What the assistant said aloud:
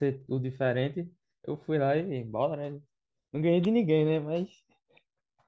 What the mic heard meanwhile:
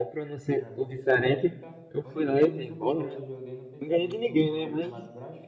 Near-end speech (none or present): present